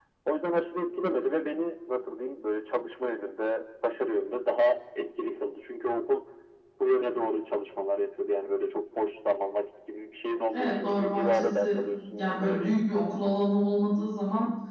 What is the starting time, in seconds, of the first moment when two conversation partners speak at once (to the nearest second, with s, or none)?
11 s